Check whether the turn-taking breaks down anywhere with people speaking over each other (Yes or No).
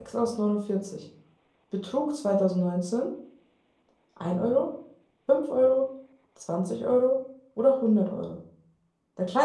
No